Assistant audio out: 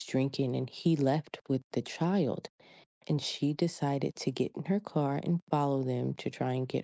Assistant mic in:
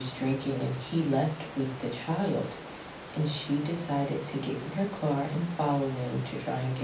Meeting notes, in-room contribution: none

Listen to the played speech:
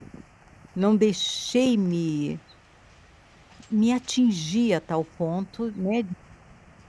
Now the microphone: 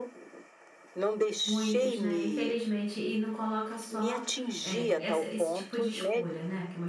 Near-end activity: present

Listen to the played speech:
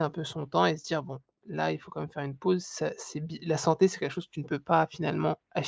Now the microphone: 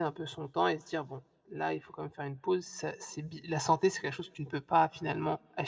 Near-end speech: none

